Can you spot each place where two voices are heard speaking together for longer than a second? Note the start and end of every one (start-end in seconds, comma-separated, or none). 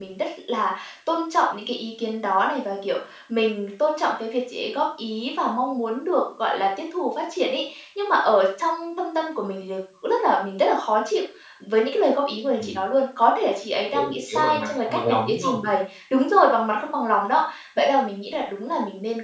13.9-15.6